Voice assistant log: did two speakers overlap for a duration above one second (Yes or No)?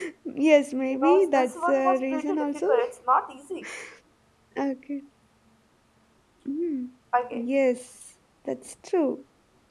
Yes